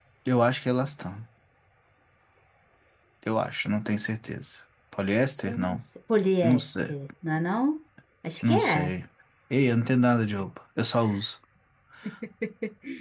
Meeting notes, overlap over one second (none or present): none